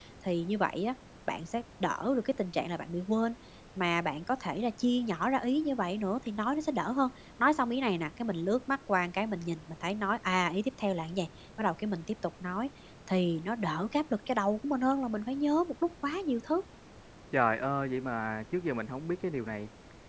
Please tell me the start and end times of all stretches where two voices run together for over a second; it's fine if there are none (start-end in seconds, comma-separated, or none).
none